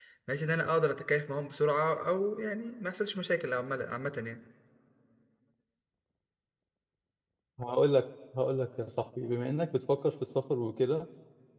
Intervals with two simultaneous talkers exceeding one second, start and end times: none

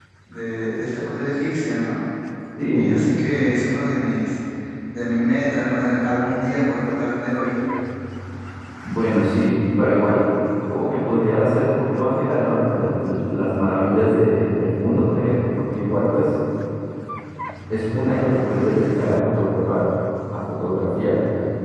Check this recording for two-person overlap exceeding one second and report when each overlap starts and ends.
none

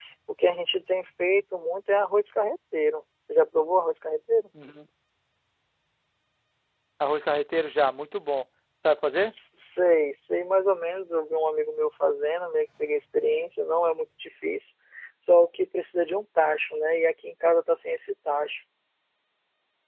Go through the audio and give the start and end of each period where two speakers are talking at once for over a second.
none

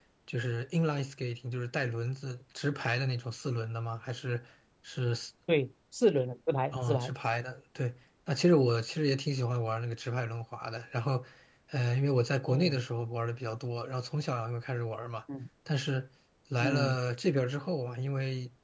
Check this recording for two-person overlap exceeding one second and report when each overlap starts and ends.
none

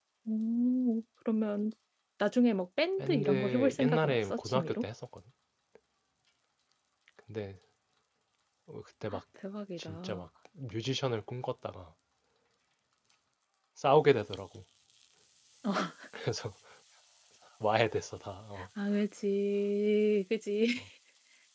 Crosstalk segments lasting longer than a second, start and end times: 3.0-4.8

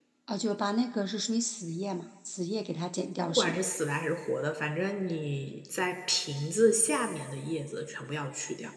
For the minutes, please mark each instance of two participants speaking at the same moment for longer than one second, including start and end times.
none

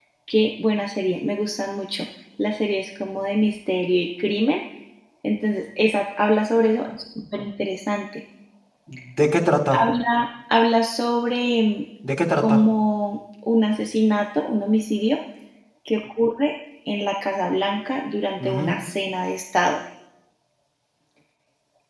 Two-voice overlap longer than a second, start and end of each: none

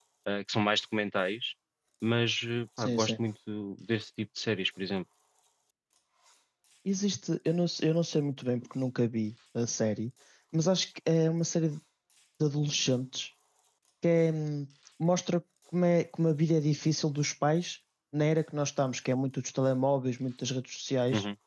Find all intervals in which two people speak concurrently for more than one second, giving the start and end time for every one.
none

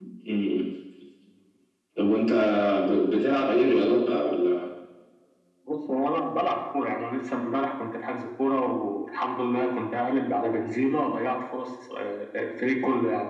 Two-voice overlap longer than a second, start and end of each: none

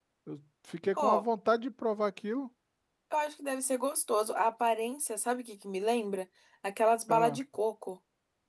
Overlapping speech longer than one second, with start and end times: none

